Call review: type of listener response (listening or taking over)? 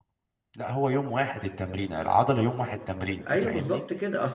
taking over